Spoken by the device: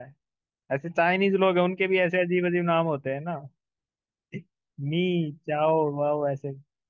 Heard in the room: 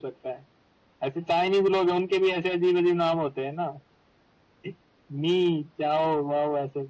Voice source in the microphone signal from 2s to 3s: echo only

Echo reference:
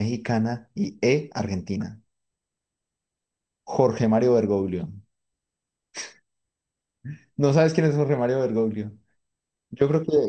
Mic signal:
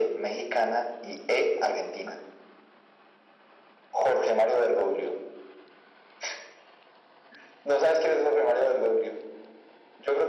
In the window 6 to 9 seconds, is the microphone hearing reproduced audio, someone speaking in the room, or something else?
echo only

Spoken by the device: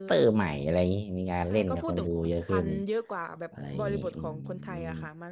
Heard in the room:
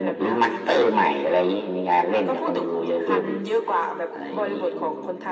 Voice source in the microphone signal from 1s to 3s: echo only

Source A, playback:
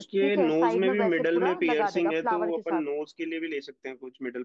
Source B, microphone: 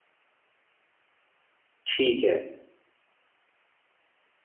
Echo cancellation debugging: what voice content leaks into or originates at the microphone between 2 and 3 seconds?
user only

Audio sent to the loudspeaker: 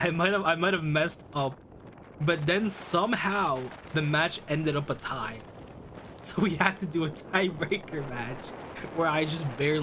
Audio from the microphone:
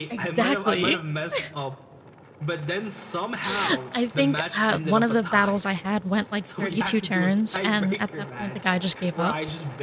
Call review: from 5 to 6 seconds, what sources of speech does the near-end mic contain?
both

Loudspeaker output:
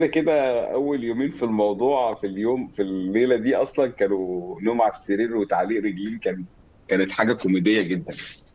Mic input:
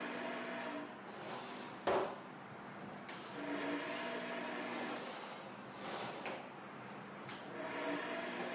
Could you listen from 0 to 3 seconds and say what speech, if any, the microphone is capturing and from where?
neither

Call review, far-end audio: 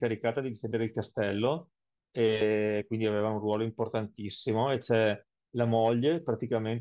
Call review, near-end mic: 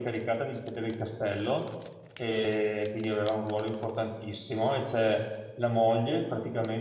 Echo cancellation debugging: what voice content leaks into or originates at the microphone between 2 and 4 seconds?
echo only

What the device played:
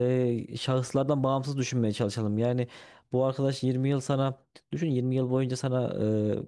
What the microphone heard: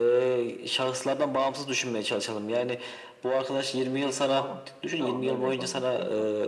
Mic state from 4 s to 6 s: both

